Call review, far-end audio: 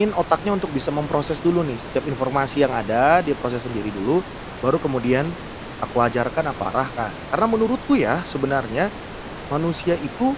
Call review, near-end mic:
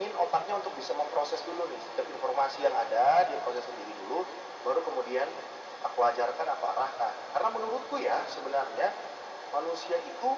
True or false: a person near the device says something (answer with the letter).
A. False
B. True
A